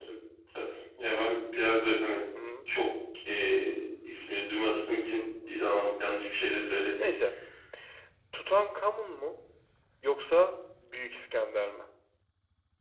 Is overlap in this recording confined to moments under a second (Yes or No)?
Yes